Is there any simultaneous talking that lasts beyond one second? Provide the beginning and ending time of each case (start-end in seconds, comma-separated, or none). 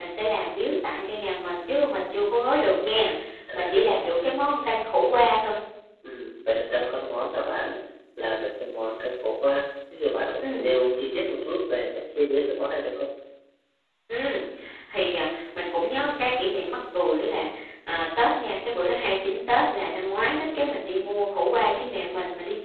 none